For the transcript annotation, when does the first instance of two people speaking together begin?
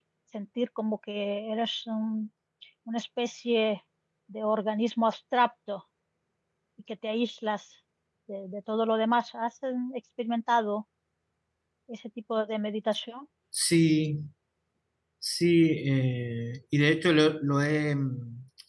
none

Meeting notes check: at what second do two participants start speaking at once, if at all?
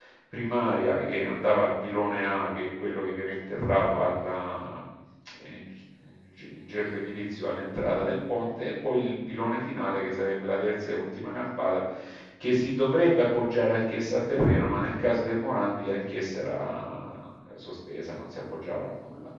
none

